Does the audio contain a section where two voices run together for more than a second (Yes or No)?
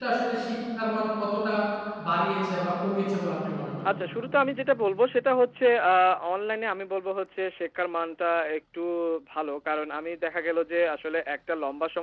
No